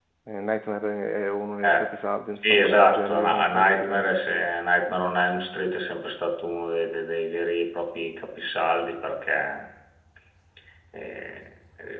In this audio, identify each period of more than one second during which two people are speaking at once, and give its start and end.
2.4-3.8

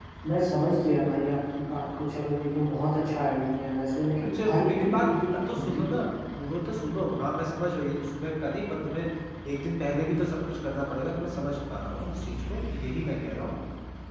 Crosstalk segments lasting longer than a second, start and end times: 4.2-5.9

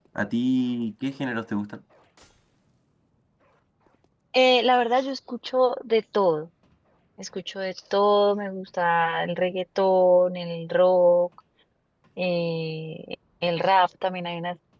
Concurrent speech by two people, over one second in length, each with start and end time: none

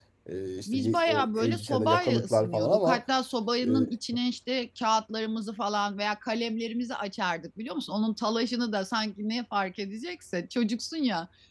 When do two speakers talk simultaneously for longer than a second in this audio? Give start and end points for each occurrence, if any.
0.7-3.0

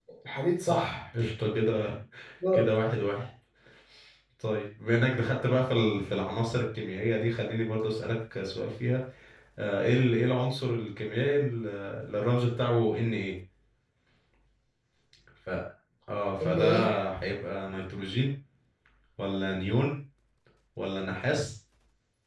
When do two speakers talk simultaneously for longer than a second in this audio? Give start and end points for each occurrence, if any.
none

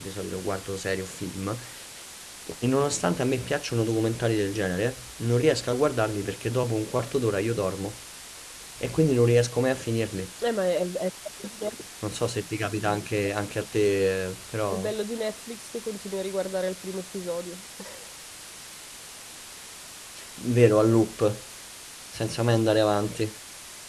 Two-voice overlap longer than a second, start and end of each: none

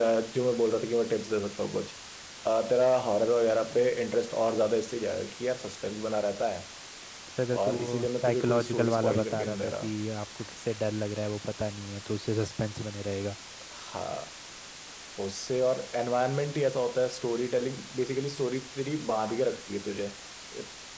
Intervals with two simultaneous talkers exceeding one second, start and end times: 7.7-9.9

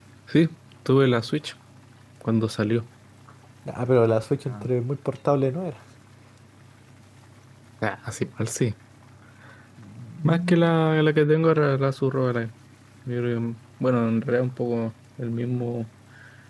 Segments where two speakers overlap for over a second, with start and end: none

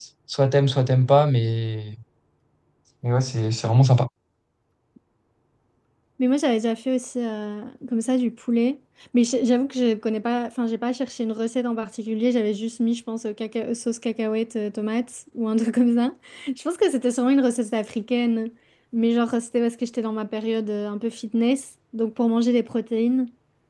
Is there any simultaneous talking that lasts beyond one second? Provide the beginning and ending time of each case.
none

